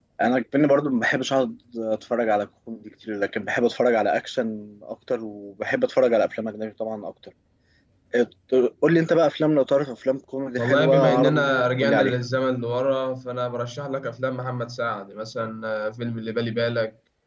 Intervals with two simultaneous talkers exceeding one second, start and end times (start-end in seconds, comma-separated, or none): 10.6-12.2